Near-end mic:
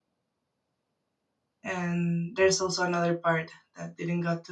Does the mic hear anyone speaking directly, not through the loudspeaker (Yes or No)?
Yes